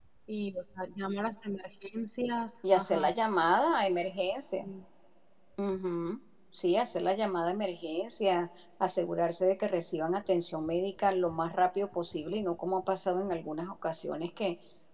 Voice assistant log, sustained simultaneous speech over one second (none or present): none